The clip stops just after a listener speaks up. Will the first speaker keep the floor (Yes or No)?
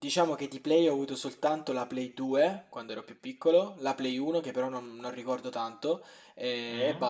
Yes